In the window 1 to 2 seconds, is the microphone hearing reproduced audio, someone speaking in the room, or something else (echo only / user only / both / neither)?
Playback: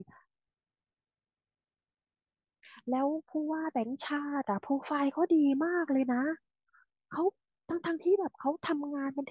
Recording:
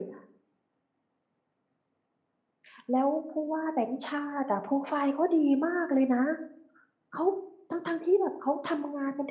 neither